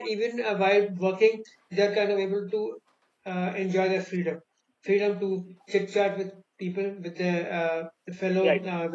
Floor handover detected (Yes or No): No